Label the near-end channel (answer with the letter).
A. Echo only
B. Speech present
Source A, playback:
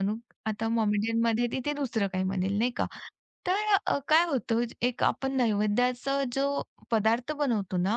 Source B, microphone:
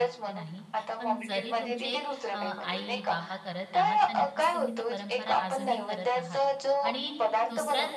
B